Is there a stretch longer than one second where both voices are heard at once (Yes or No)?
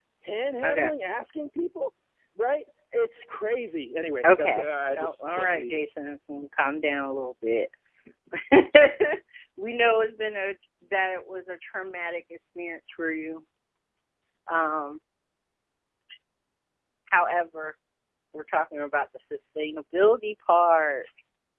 Yes